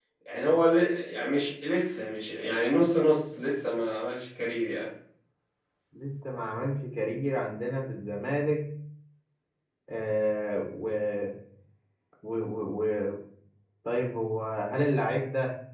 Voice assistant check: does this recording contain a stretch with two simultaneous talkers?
No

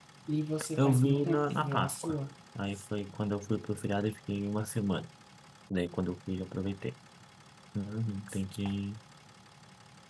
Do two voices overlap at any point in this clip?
Yes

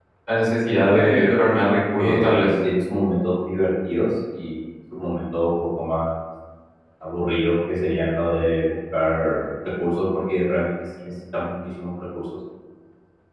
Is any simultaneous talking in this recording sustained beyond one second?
Yes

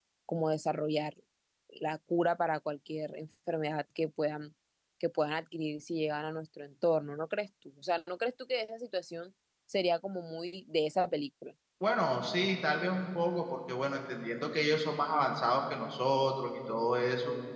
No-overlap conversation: Yes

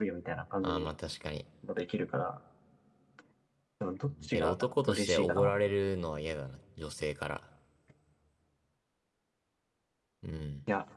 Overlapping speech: Yes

